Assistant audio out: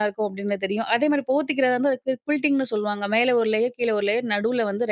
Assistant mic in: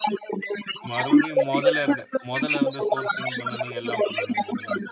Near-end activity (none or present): present